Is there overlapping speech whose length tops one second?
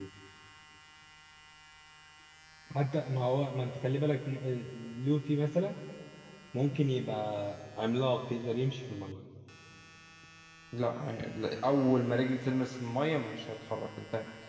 No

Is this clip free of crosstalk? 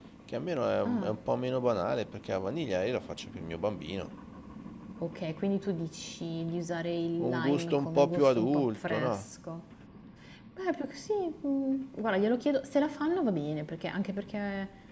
No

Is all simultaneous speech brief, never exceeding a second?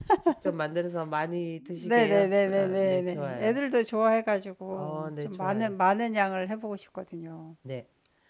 No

